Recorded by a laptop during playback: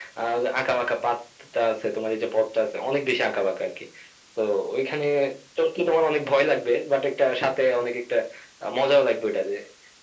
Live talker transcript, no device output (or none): none